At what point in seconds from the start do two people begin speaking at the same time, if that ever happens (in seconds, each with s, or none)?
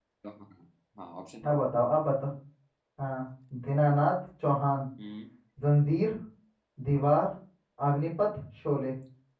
none